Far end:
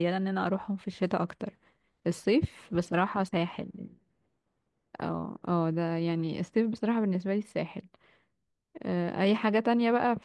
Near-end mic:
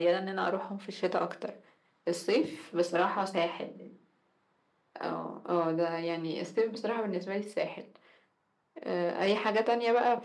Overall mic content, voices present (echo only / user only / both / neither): echo only